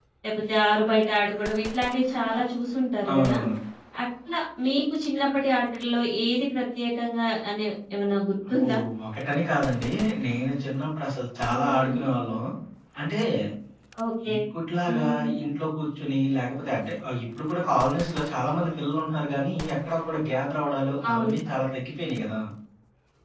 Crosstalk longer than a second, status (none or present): none